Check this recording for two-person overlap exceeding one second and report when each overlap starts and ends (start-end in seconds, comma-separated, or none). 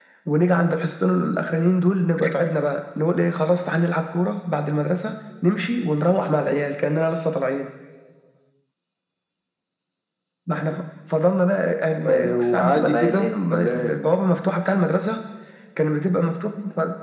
12.1-14.0